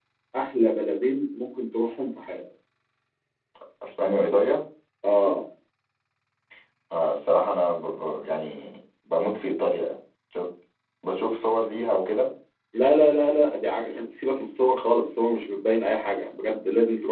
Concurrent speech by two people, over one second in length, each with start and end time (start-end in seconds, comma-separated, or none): none